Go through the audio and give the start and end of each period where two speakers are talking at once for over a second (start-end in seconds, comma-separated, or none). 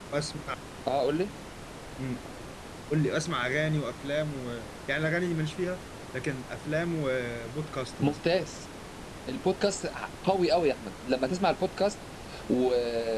none